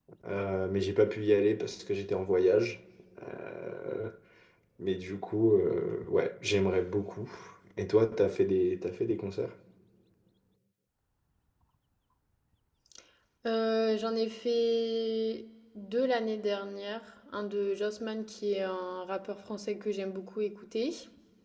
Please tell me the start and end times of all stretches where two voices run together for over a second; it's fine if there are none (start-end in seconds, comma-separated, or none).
none